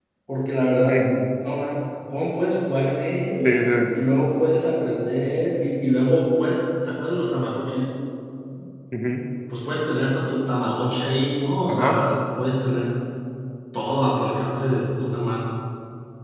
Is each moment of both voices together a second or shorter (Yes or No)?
Yes